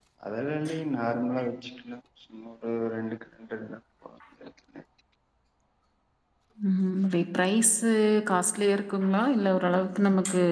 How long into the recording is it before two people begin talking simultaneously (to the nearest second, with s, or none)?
none